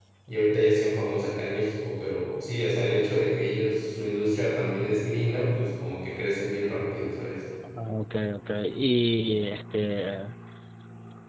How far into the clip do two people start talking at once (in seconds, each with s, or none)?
none